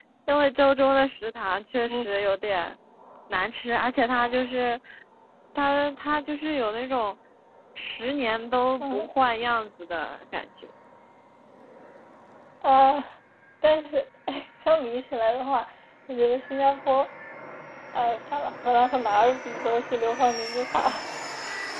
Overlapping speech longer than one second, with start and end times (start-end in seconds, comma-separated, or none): none